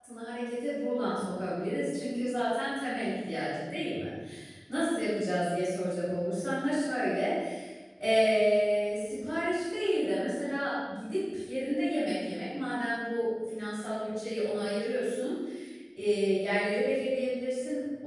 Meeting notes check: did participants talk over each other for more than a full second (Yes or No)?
No